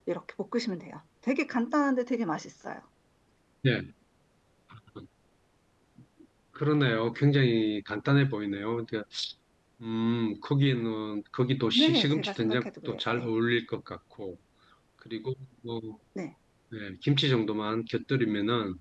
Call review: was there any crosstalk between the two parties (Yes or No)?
Yes